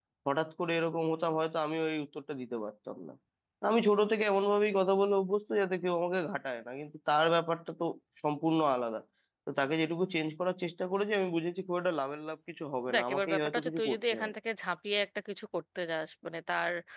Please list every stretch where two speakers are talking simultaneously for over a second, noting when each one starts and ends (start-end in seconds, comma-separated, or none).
12.9-14.3